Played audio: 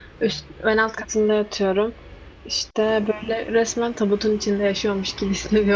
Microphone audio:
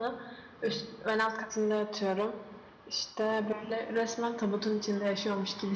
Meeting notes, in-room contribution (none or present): none